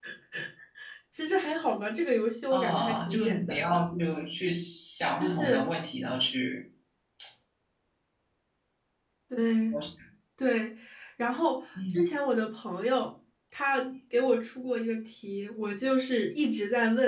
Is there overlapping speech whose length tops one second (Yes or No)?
Yes